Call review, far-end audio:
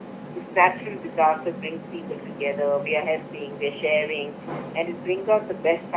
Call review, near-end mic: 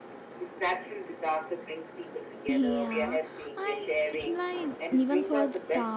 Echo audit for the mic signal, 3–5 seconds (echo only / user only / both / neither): both